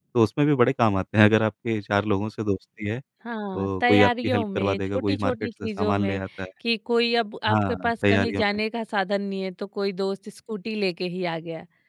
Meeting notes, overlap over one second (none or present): present